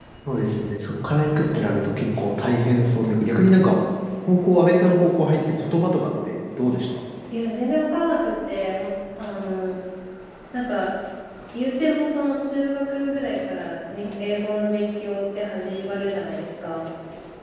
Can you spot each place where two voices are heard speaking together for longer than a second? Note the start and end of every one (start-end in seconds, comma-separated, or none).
none